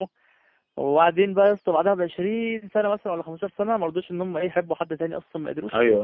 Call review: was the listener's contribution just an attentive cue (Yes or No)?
Yes